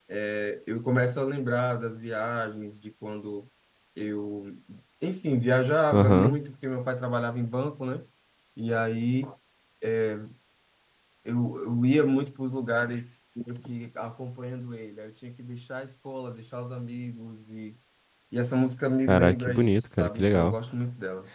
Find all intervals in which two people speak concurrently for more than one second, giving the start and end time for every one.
19.1-20.6

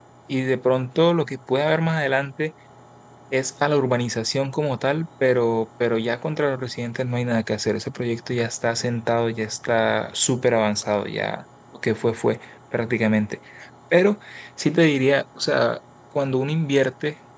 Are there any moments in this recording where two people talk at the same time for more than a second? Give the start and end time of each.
none

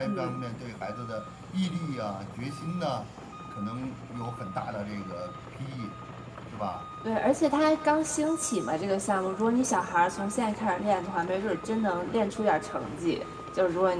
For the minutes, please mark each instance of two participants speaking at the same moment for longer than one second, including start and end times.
none

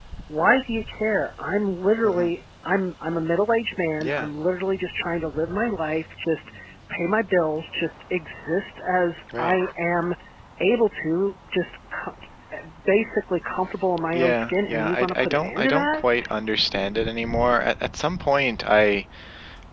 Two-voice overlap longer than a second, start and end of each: 14.1-16.3

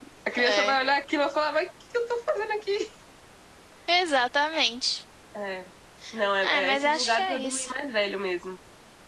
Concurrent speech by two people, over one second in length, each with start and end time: 6.4-7.7

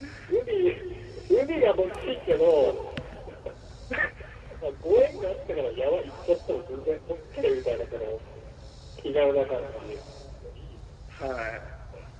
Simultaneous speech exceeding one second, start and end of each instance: none

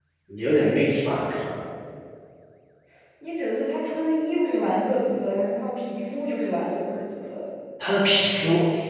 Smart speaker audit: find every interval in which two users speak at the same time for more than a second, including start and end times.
none

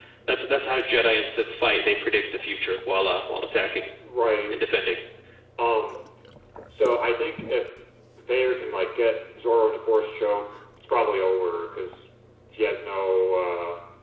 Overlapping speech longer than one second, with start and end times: none

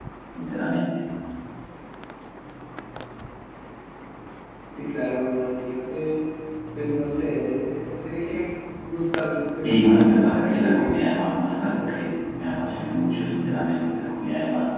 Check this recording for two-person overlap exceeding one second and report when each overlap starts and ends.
9.6-11.0

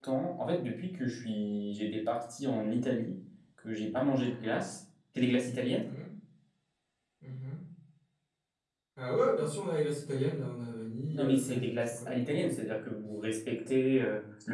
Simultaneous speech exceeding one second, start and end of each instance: 11.1-12.8

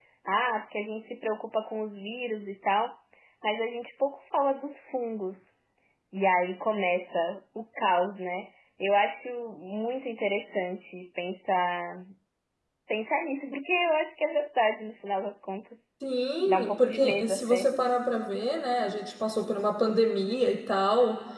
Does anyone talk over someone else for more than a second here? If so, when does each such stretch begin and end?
16.5-17.7

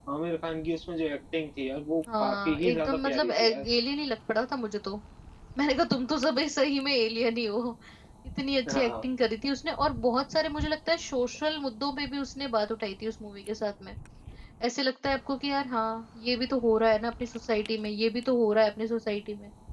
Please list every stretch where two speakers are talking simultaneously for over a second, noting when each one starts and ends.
2.2-3.6

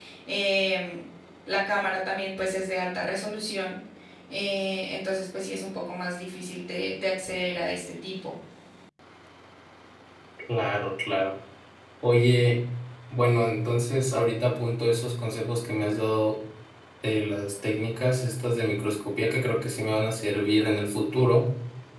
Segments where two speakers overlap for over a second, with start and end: none

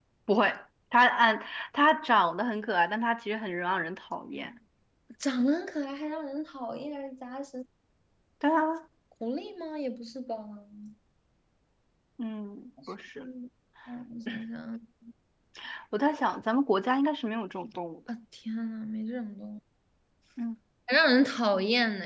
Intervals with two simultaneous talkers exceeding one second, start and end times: none

